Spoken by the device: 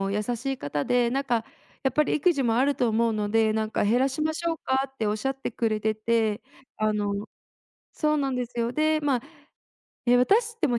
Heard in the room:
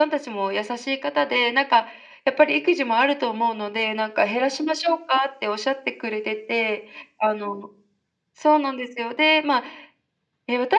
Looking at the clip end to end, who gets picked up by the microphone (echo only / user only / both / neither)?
echo only